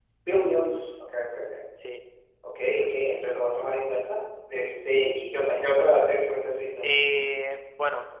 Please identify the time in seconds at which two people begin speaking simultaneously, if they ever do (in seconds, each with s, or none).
none